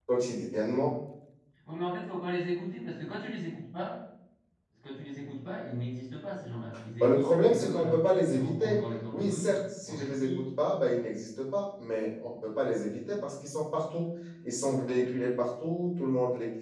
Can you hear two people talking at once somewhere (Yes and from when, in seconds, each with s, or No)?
Yes, from 7.0 s